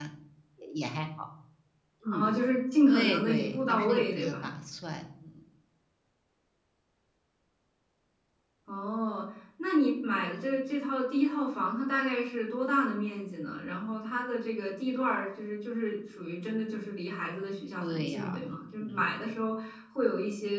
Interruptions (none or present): present